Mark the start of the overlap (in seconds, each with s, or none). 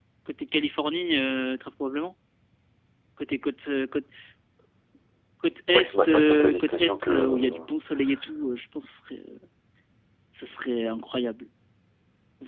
5.7 s